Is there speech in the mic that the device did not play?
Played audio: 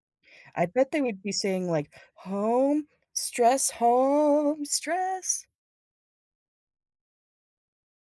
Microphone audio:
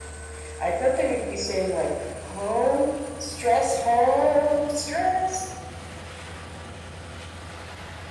No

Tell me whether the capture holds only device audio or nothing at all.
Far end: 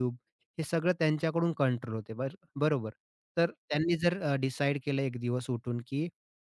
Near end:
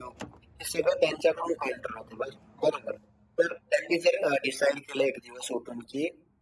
Yes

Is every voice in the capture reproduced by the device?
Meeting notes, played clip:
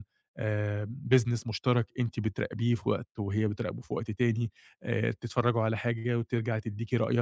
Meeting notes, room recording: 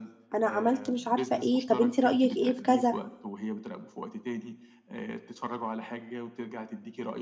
No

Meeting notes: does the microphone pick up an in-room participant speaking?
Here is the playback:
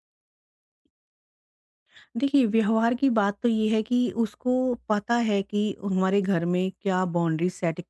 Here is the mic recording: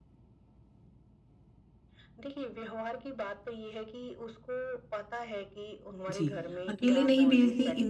Yes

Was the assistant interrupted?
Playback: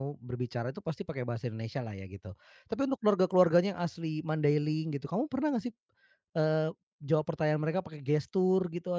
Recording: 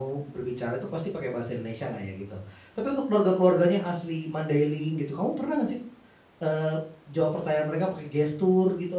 No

